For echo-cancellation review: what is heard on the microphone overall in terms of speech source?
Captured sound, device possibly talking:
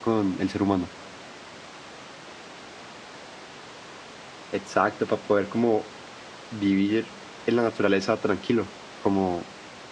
user only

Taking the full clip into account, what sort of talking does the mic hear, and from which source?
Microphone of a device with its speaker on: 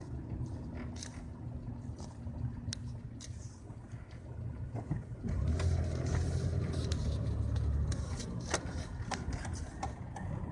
neither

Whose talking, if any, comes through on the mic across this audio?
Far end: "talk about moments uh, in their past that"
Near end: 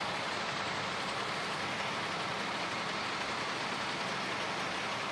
neither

